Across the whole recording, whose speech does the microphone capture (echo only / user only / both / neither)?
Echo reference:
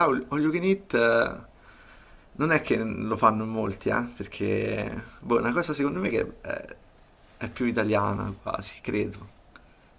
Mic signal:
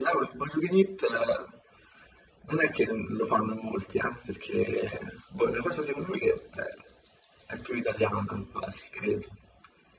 echo only